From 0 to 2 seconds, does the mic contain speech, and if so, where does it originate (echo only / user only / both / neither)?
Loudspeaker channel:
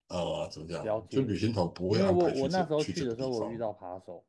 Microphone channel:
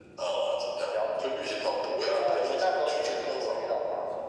echo only